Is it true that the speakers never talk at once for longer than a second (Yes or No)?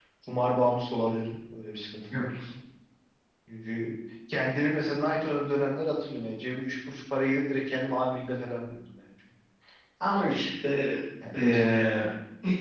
Yes